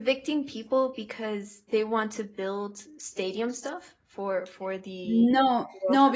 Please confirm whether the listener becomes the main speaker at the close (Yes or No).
Yes